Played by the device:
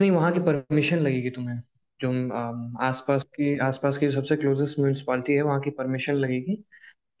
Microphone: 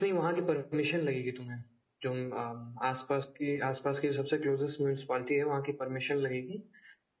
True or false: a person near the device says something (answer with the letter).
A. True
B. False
B